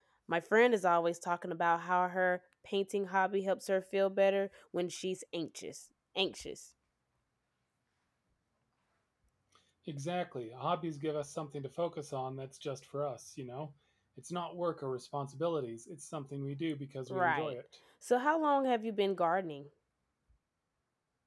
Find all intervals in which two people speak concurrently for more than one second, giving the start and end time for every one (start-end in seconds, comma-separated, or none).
none